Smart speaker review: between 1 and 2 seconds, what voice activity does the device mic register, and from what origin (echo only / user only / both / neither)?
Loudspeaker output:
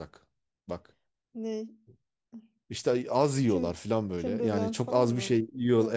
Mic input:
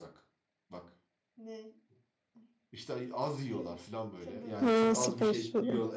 echo only